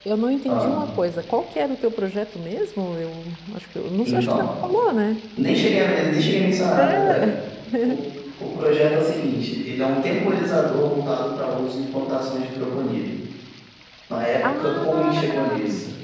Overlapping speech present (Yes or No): Yes